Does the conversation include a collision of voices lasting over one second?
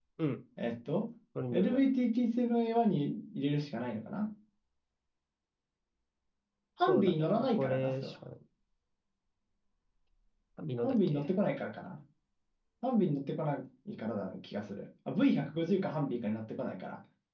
Yes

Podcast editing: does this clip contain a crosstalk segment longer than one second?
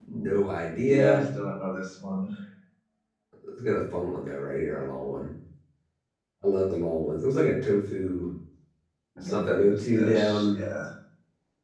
Yes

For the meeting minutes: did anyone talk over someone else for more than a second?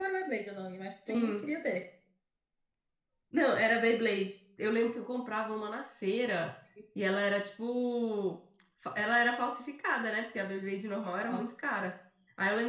No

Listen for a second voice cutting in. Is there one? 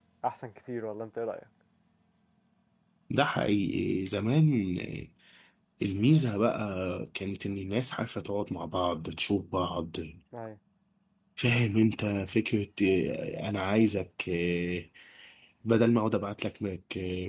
No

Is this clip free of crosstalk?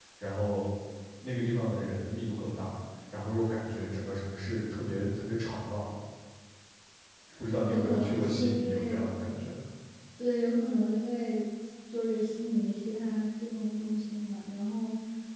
No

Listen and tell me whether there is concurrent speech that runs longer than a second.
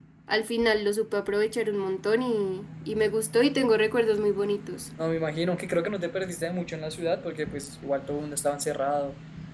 No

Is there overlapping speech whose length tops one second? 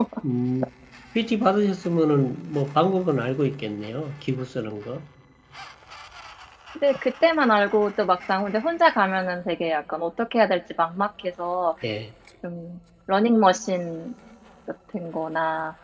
No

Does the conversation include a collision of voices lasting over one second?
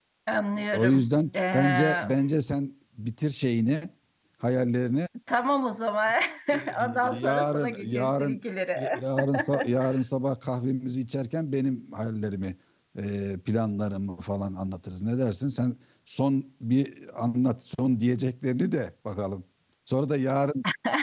Yes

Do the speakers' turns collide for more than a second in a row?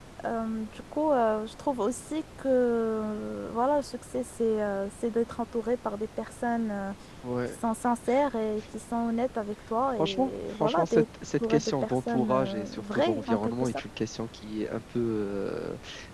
Yes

